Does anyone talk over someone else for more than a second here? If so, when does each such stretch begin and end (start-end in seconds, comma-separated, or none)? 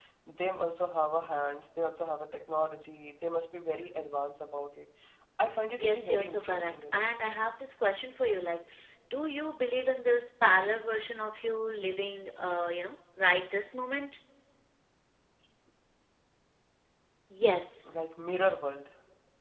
5.8-7.0